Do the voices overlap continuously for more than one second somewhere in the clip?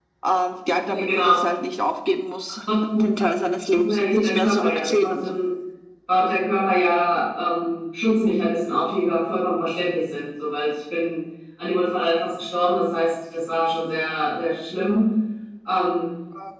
Yes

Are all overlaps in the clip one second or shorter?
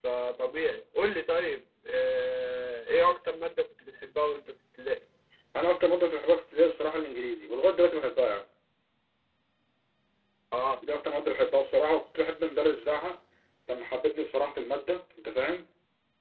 Yes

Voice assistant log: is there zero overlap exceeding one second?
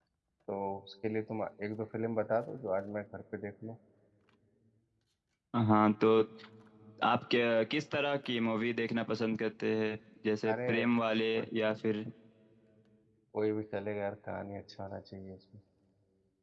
Yes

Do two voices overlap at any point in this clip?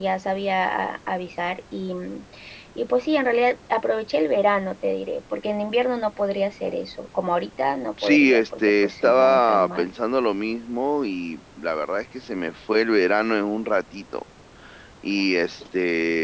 Yes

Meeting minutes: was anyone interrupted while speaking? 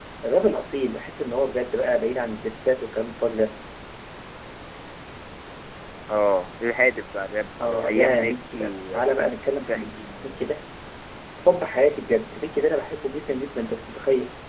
Yes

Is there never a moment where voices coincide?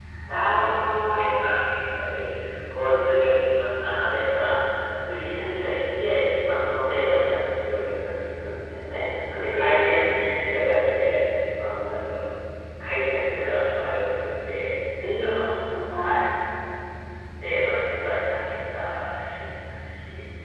No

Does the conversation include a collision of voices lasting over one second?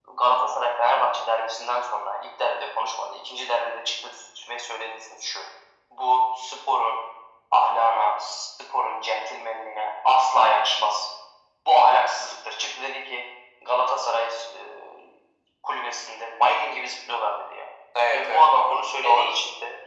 Yes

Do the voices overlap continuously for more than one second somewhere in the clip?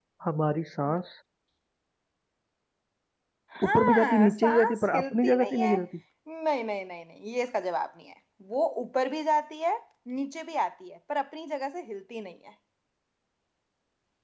Yes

